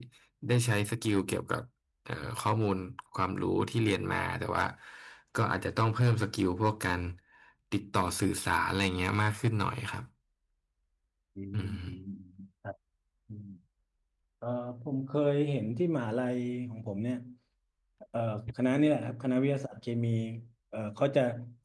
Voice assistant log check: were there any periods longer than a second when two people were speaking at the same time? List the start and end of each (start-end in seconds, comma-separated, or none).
none